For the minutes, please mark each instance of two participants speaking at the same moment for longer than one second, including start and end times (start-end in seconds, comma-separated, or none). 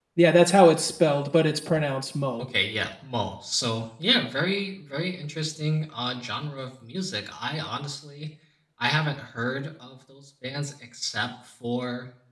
none